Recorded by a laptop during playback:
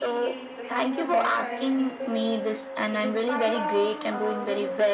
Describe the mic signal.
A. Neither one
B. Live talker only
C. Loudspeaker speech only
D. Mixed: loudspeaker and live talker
D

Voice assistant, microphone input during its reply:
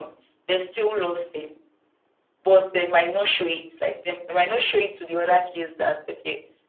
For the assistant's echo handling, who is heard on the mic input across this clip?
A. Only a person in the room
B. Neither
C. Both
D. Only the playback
D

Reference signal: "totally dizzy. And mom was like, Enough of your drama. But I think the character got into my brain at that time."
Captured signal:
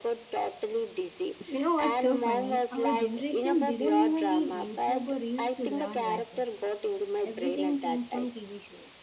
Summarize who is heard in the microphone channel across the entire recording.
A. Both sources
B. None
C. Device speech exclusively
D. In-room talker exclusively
A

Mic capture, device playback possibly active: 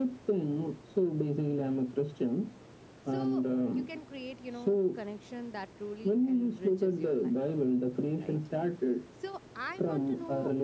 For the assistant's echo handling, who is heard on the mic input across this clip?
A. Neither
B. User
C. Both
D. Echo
C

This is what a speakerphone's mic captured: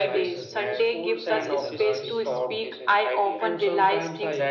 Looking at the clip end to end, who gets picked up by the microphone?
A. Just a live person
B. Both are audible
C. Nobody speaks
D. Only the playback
B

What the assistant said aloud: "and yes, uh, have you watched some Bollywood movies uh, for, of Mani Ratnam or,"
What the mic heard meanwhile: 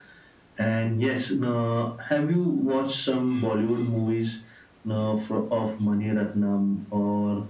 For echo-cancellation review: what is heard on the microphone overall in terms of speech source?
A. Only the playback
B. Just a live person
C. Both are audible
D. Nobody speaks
A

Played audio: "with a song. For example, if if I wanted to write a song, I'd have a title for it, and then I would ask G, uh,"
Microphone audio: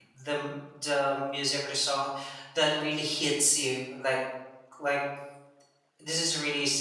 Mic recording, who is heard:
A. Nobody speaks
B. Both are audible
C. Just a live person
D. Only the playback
C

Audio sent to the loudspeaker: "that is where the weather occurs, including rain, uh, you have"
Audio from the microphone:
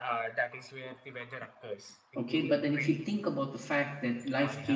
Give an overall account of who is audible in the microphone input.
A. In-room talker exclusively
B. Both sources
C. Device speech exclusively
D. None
B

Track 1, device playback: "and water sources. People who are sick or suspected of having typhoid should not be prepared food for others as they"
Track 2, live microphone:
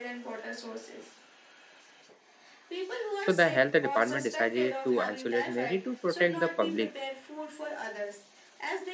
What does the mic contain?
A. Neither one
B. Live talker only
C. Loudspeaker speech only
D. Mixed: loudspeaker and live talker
D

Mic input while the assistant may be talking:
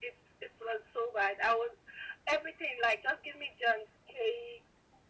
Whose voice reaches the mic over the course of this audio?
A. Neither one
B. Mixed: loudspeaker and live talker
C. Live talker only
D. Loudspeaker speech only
D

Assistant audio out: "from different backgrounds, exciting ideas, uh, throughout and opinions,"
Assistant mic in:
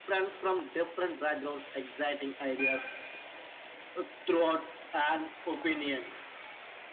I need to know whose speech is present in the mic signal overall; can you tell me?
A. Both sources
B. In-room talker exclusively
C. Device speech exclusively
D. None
C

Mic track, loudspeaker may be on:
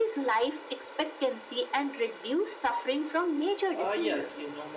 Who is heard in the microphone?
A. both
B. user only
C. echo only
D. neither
A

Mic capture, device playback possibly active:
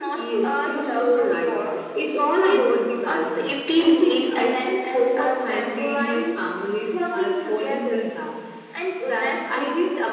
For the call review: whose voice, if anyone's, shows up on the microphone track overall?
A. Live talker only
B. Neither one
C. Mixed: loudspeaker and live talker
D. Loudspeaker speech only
D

